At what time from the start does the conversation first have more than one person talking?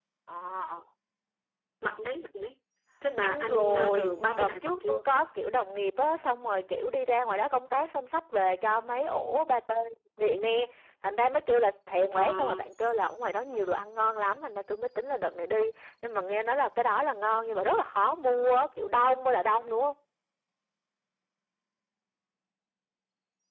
3 s

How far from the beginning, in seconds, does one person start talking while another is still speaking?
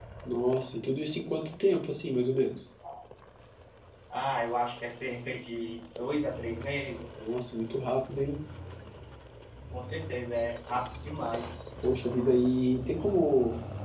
none

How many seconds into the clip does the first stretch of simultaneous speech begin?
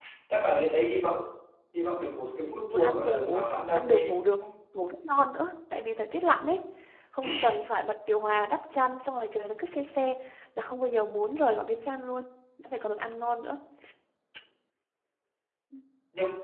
2 s

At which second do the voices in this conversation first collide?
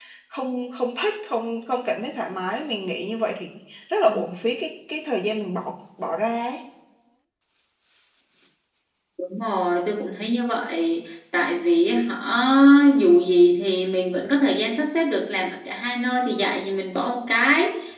none

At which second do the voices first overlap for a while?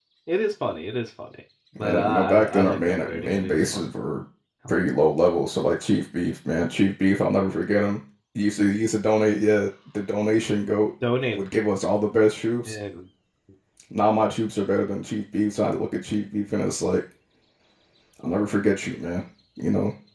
2 s

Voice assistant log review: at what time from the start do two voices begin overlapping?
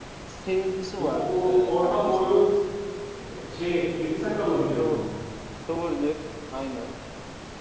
1 s

